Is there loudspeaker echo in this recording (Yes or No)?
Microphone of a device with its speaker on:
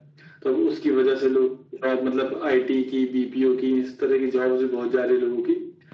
Yes